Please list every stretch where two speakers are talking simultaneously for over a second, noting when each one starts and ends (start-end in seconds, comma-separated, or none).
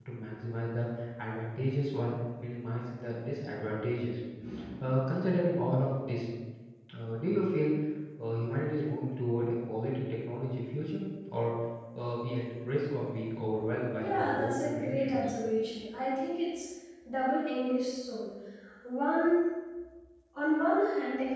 13.9-15.2